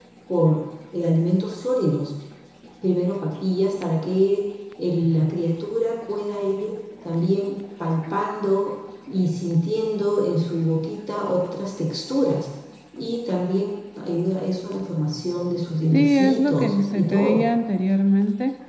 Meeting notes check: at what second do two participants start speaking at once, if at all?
16 s

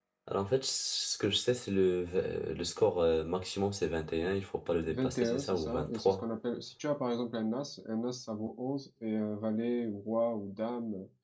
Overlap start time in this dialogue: 5 s

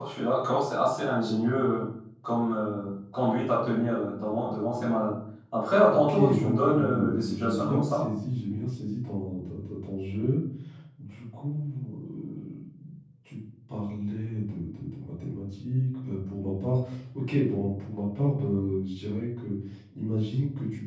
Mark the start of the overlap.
6 s

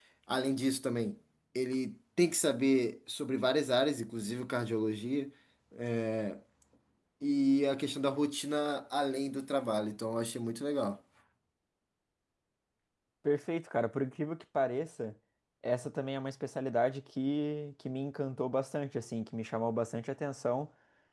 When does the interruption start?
none

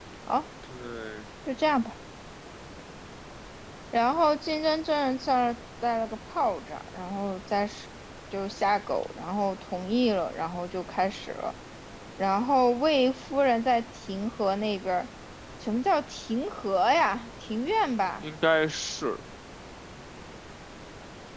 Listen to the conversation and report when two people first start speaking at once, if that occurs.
none

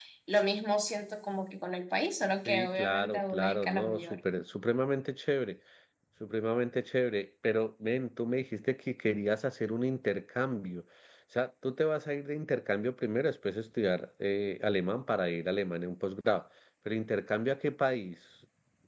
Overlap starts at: 2 s

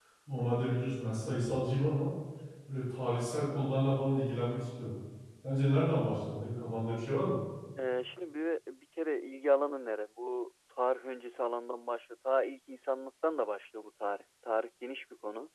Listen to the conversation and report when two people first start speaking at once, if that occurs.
none

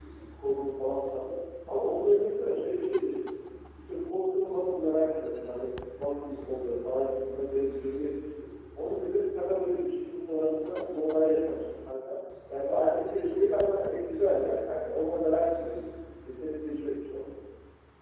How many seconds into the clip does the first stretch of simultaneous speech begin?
none

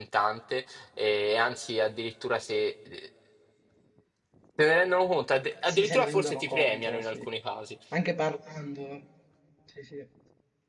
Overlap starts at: 6 s

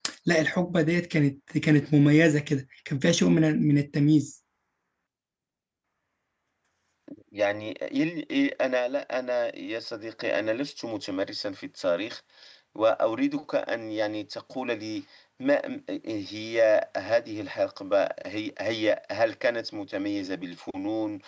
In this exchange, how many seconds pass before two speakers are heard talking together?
none

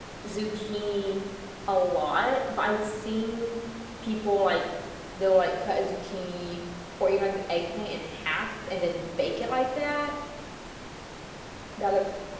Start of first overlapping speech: none

